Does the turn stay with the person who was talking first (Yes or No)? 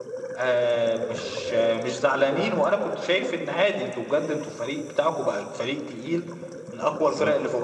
Yes